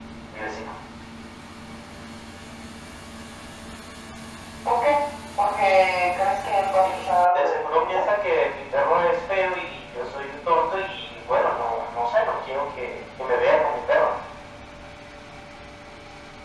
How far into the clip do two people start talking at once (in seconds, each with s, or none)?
6.8 s